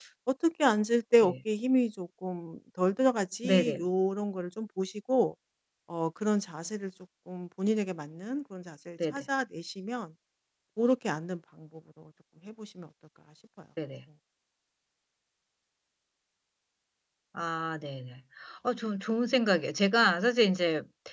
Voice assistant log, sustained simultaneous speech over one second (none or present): none